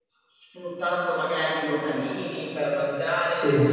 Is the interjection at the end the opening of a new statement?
No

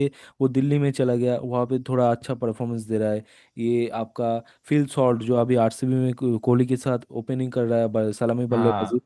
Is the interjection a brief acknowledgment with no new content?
Yes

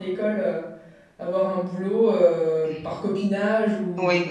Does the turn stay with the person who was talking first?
No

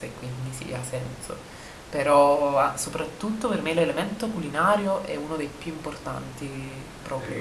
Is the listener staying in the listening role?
No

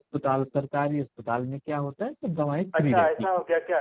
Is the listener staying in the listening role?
No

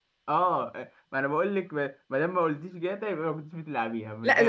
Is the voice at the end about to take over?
Yes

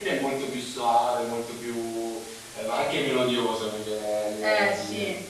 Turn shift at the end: Yes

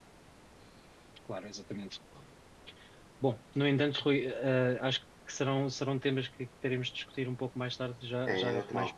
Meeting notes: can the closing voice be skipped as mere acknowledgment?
No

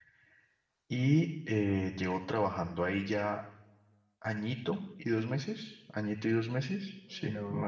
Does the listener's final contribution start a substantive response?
Yes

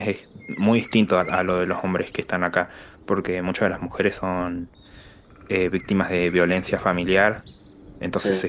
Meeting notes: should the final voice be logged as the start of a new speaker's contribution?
No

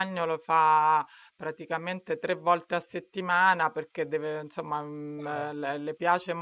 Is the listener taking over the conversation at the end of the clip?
No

